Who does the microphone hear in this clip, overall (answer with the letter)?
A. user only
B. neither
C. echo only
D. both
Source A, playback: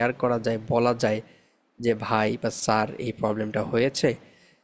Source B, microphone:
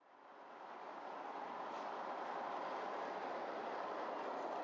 B